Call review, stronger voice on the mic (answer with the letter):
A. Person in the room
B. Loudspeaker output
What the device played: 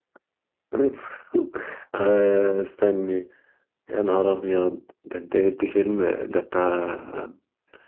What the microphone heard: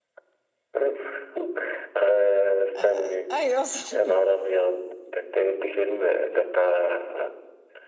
B